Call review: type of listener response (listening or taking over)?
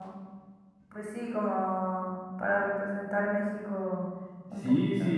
taking over